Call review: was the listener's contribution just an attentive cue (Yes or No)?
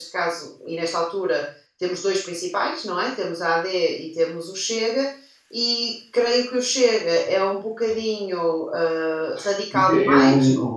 No